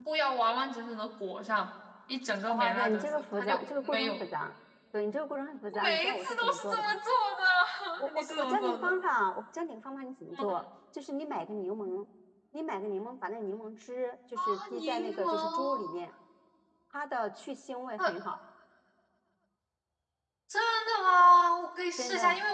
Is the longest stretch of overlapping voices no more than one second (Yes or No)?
No